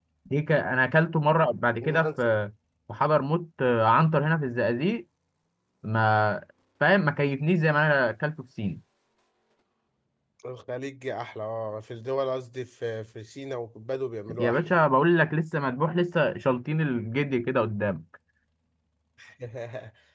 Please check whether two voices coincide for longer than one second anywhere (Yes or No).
No